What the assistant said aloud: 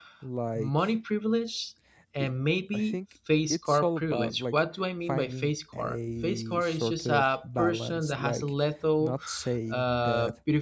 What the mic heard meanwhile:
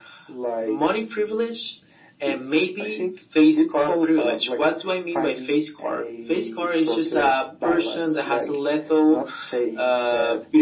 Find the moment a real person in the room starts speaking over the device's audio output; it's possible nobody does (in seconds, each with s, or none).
none